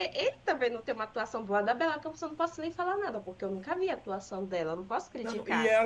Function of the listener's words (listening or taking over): taking over